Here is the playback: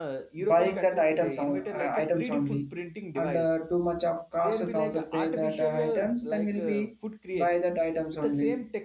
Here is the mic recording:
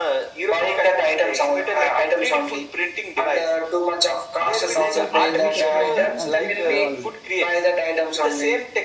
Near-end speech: present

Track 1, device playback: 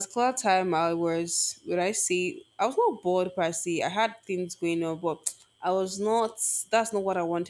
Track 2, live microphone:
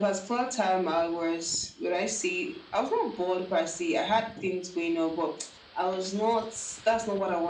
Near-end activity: none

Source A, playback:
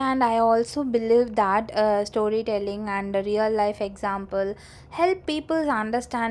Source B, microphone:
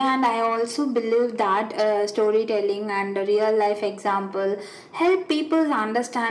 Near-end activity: none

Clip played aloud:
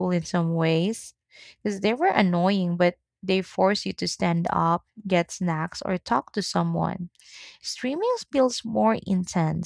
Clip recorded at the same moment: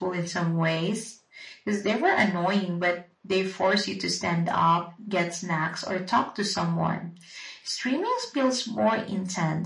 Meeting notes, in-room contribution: none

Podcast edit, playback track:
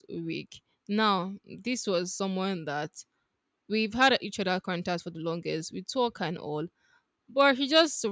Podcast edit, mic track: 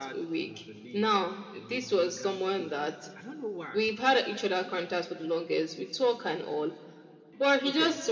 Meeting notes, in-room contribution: present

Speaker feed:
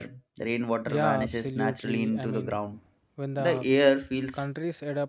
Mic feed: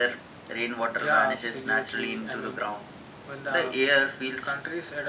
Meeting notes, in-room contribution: none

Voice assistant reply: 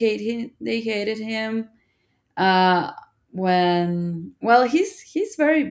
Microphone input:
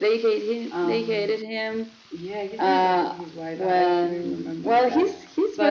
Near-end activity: present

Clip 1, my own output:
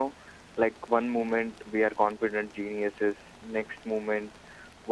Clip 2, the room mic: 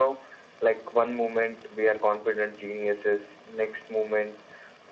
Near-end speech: none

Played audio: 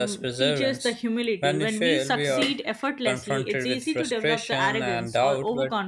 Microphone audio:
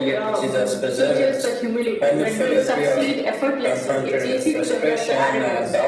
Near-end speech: none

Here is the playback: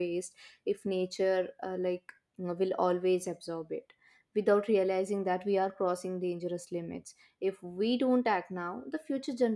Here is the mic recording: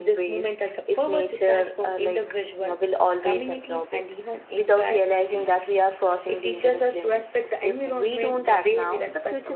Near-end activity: present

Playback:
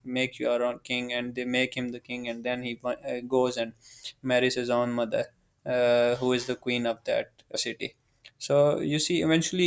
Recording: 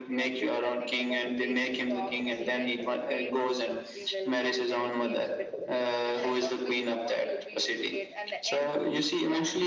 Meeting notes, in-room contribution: present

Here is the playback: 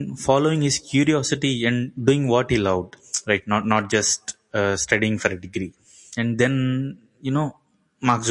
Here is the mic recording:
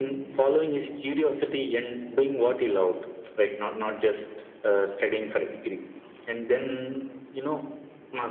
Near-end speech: none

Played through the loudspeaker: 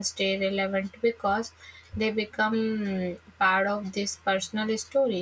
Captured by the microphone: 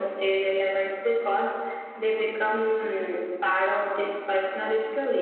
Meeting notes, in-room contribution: none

